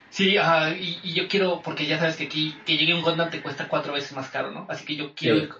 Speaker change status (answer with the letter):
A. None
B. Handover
A